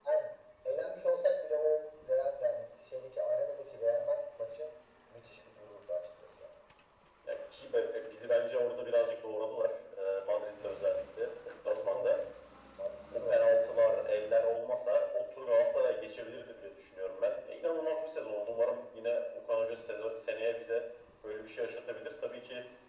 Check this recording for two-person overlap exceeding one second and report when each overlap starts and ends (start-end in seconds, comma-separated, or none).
none